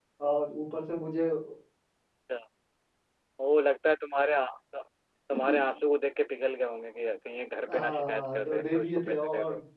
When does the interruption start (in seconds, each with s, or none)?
7.7 s